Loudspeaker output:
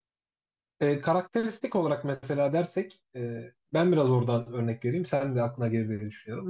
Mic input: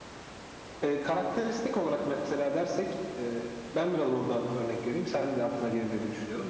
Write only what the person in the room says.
none

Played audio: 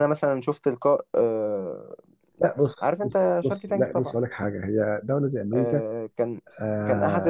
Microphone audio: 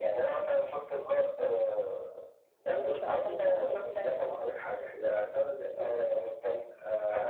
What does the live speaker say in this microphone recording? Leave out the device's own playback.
ما فيش 4 جنيه 500000

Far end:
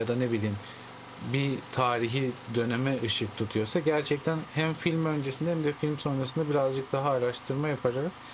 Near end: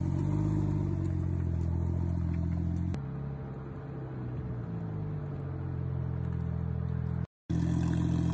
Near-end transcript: none

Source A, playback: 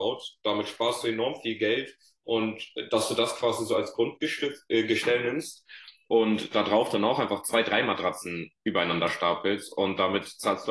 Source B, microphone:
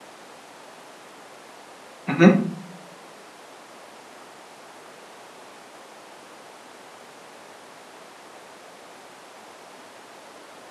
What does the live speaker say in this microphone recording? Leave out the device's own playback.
mhm.

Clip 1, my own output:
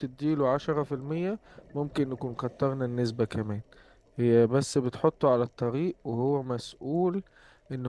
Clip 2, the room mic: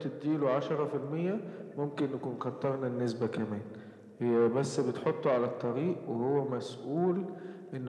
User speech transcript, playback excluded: none

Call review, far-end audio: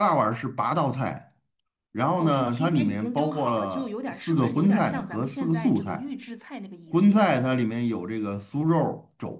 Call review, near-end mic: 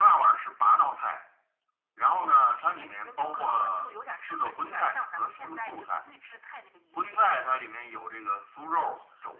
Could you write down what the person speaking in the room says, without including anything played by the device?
none

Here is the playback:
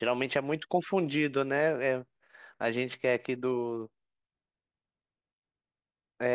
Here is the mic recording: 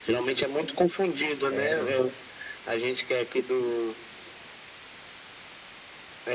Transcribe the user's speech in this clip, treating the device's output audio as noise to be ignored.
Sério?

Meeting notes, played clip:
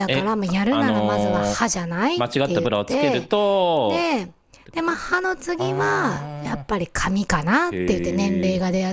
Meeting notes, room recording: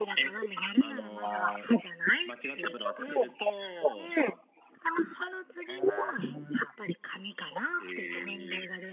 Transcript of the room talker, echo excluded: none

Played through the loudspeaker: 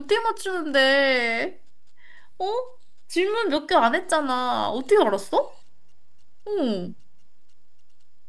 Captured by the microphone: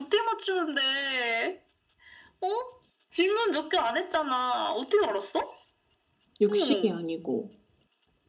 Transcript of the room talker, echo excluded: 육식이 아니고.

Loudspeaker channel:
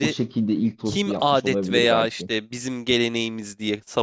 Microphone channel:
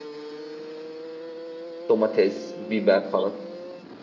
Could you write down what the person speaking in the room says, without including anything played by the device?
Domates, biber falan.

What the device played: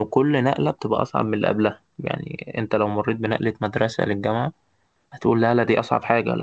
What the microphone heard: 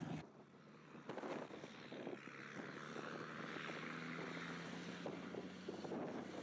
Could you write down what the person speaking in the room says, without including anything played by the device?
none

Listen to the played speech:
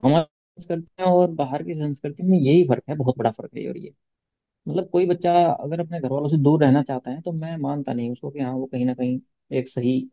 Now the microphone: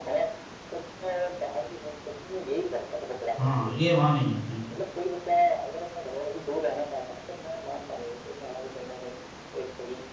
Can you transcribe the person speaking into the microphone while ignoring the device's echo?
हाँ ये वहां नहीं है बिल्कुल

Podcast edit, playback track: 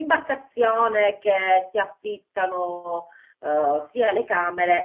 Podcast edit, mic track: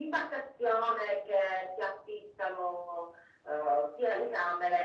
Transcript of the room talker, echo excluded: none

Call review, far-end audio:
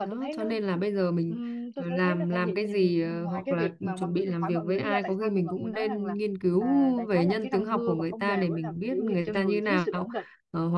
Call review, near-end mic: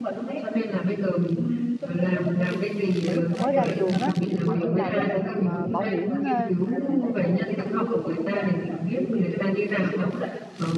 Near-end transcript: hồi lúc tôi mới ra trường á tôi tôi làm ờ, bảo hiểm ờ,

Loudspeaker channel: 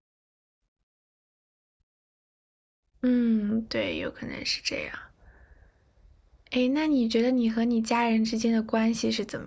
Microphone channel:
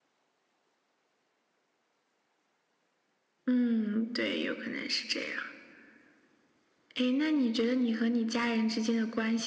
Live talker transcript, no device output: none

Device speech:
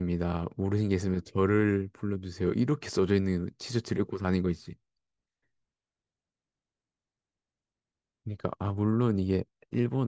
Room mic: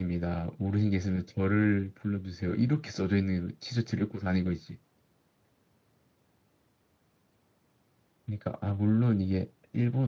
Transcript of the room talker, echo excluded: none

